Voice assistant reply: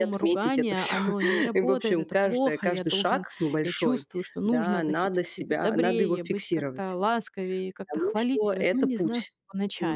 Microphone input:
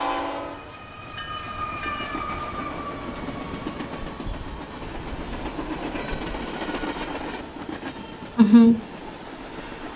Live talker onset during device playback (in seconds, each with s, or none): 8.3 s